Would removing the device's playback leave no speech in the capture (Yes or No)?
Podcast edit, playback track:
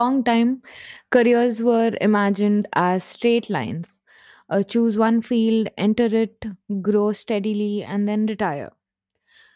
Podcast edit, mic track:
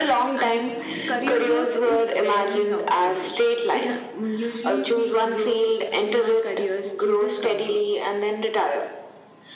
No